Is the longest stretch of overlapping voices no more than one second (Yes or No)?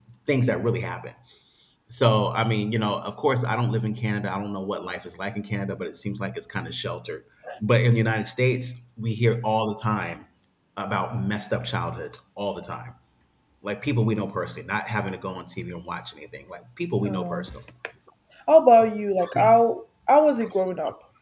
Yes